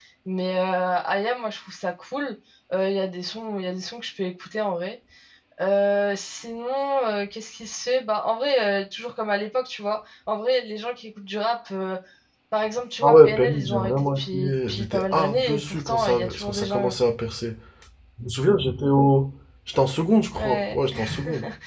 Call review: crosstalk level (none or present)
present